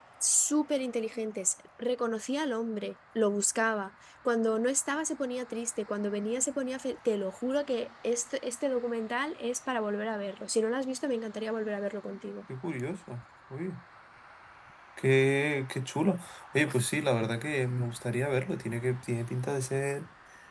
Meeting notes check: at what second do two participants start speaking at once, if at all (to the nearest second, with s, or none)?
none